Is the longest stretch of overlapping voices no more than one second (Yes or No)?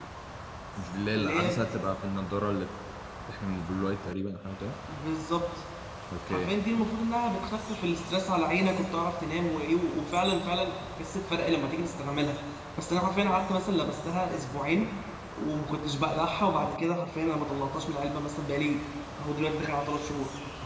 Yes